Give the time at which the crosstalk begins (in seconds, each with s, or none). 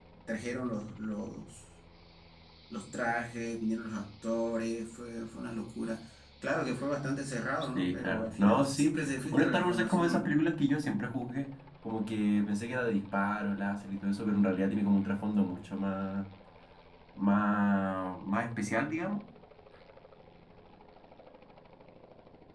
7.7 s